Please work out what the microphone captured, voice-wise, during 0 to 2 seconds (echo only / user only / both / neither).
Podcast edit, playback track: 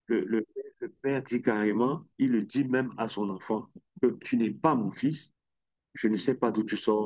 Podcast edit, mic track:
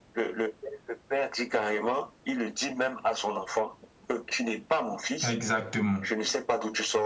echo only